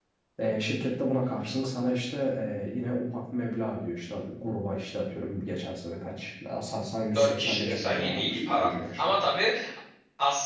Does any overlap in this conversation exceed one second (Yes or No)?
Yes